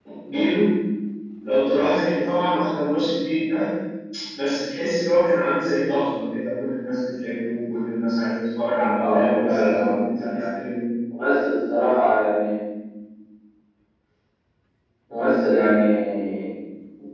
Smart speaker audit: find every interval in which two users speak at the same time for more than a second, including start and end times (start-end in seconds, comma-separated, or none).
9.0-10.6